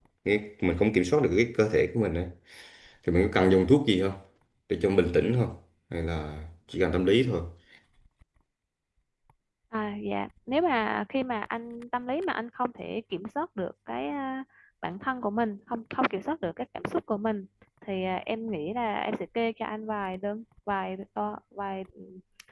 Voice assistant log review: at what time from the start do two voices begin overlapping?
none

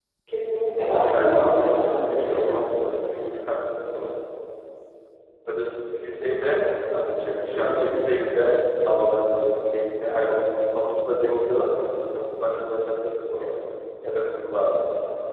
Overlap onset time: 0.8 s

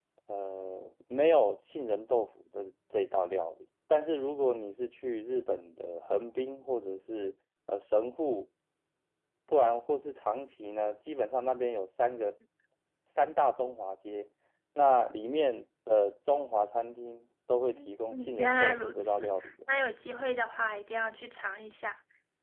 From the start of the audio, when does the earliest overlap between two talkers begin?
17.7 s

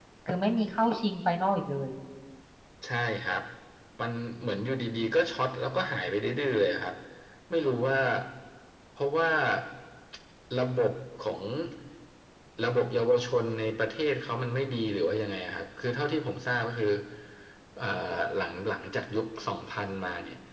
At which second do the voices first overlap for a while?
none

